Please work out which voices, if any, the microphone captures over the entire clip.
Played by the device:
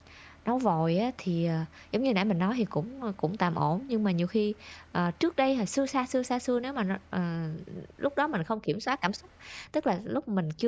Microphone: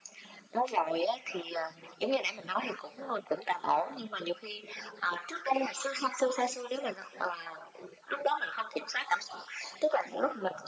echo only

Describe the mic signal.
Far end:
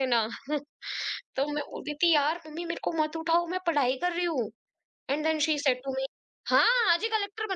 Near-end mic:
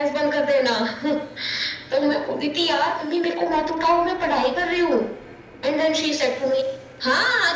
echo only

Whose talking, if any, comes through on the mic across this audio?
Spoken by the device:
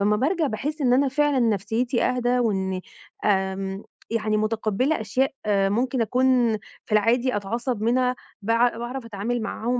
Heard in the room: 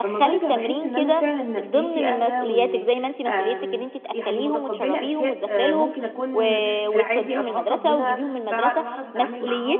both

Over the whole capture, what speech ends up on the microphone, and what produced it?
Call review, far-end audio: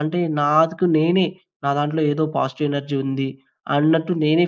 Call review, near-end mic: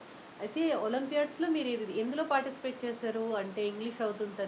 user only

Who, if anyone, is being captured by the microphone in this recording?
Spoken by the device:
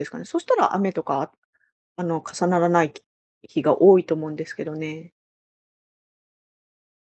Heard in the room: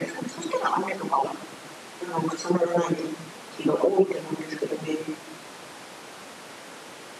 echo only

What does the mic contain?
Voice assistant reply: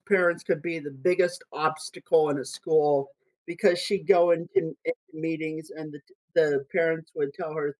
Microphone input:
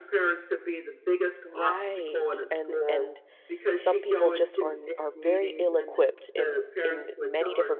both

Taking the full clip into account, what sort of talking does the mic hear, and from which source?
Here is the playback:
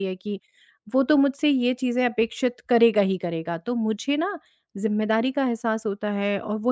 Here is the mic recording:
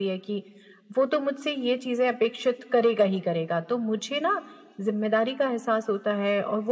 echo only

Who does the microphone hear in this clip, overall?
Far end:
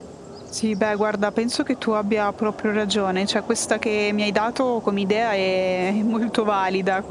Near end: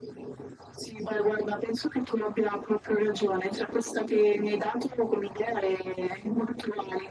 echo only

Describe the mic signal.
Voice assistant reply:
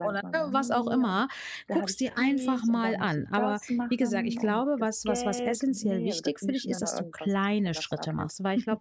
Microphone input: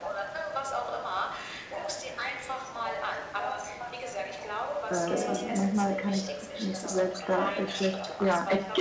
both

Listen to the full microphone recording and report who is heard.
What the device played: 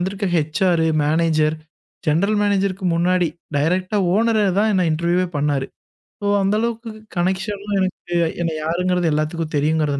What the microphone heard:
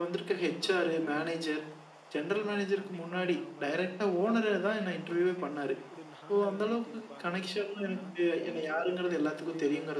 both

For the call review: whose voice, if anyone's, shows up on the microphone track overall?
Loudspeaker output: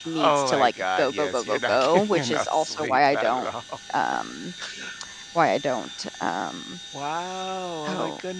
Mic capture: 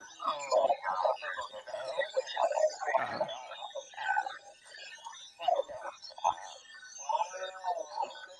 both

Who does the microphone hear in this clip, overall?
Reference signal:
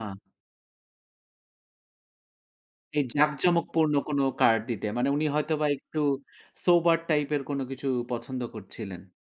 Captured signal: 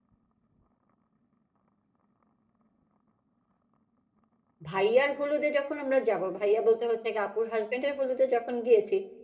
user only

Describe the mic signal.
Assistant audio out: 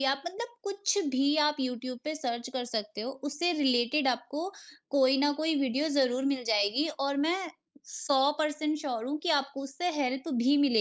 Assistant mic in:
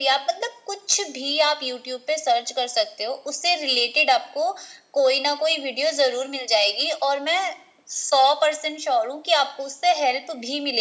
echo only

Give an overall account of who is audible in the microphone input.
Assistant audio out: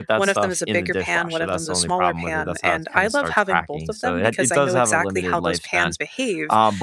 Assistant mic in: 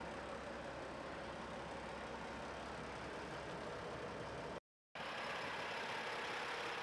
neither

